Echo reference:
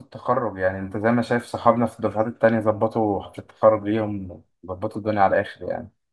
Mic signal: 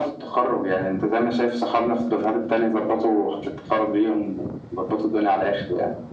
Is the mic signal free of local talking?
Yes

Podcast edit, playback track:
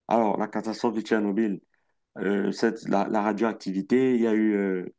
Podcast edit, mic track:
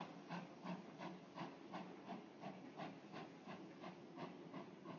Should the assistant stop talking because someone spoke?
No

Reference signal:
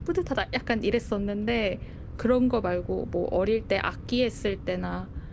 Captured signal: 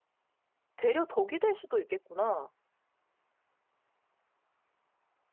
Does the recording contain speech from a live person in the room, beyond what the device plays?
Yes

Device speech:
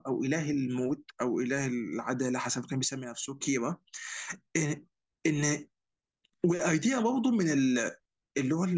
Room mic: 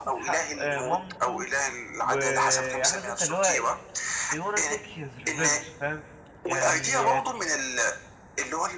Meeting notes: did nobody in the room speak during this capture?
No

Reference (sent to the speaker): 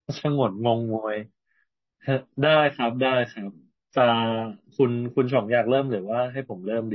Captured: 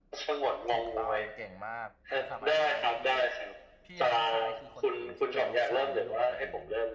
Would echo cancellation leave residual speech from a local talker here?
Yes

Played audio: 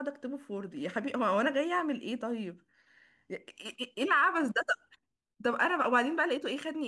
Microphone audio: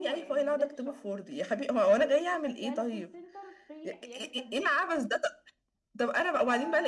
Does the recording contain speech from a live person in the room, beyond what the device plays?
Yes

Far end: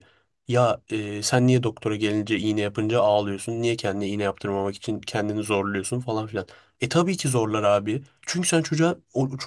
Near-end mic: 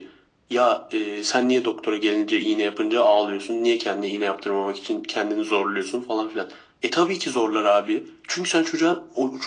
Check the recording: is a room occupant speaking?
No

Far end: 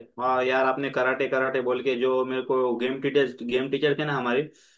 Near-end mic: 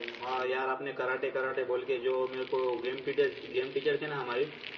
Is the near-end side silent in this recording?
Yes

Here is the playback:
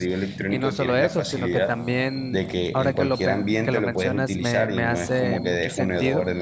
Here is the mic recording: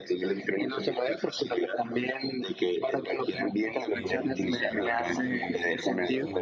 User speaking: Yes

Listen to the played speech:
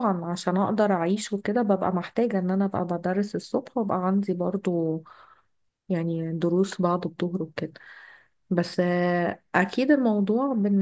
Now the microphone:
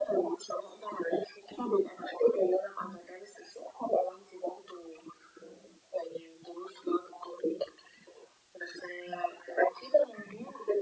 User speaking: No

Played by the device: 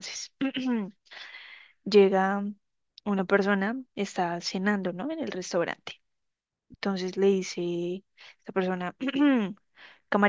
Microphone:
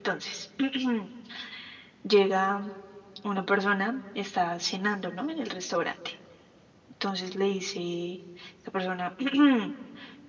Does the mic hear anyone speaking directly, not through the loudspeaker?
No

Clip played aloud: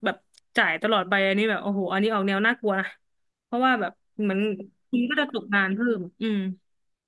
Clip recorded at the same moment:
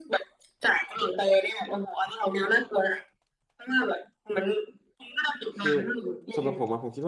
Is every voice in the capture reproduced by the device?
No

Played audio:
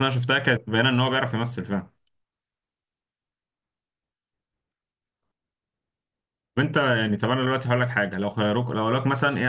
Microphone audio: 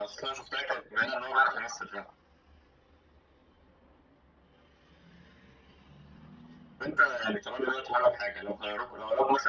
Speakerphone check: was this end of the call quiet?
Yes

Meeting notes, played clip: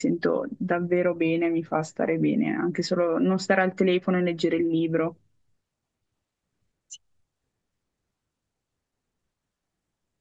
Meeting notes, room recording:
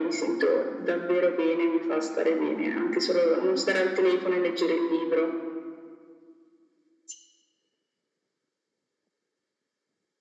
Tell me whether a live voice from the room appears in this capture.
No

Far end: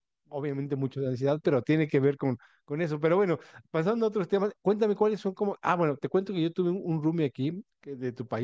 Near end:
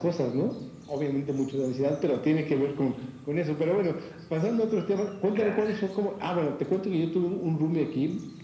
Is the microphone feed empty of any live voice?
No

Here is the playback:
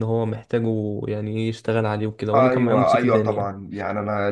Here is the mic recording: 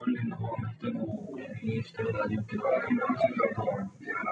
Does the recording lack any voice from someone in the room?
Yes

